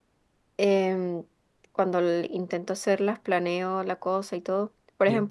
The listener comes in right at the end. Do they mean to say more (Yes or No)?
No